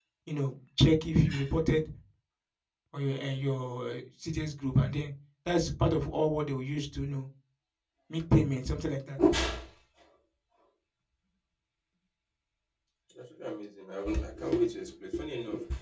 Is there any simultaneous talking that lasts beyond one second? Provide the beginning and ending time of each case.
none

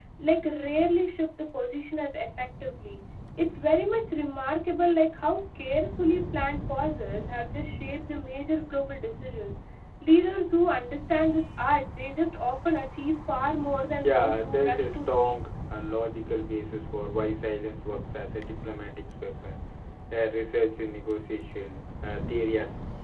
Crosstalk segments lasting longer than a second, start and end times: 14.0-15.4

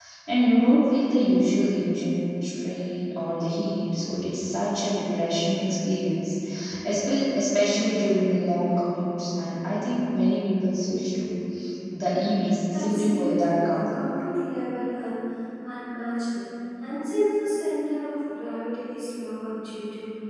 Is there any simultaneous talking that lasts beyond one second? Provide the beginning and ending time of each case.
12.7-14.1

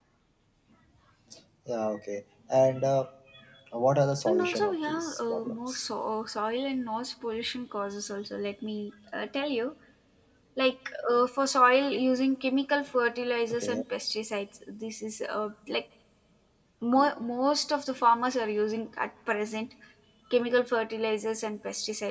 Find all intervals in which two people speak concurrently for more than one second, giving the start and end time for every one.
4.3-5.9

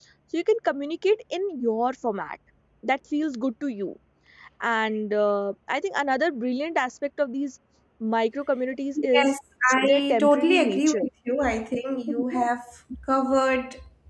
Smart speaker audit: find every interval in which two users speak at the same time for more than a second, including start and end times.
9.8-11.0

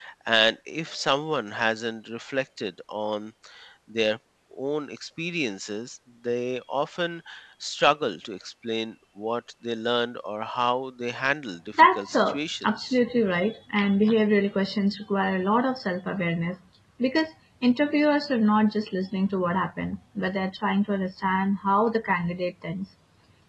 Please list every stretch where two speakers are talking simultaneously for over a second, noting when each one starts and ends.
11.8-13.0

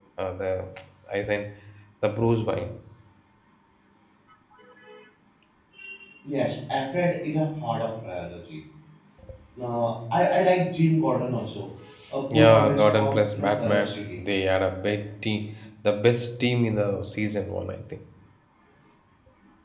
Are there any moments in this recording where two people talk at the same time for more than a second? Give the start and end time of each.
12.4-14.2

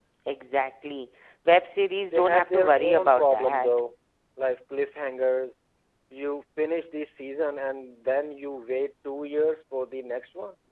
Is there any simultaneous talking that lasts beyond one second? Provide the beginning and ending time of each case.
2.1-3.7

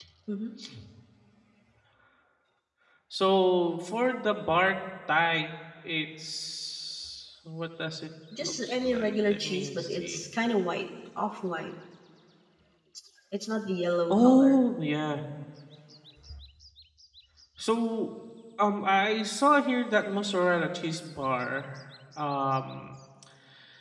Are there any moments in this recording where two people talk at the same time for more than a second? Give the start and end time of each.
8.4-10.2

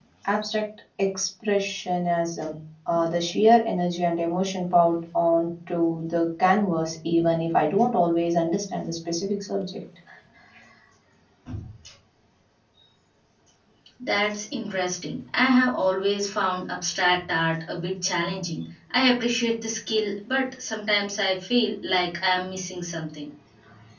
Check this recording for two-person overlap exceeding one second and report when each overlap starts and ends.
none

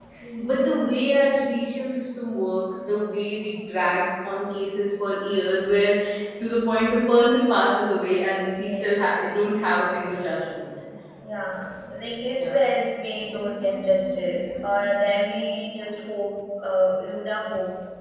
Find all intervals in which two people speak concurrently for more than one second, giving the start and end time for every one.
none

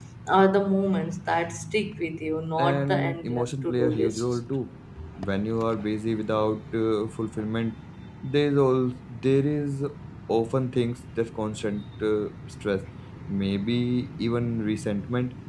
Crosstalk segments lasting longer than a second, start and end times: 2.6-4.4

